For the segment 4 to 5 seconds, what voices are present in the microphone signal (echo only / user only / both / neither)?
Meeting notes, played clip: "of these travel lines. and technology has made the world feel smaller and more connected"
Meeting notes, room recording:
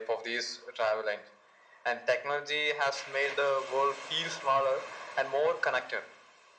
echo only